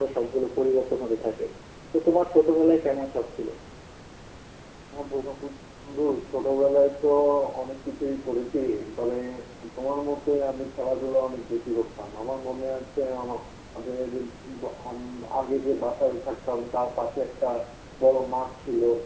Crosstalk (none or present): none